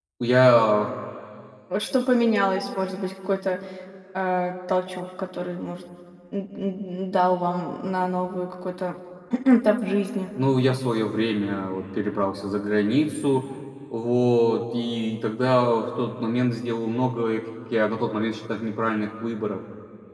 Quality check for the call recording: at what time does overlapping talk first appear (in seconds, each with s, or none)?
none